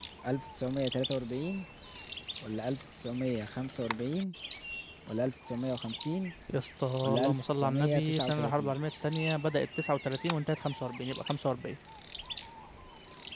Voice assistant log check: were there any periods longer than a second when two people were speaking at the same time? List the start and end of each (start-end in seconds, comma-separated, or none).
7.0-8.7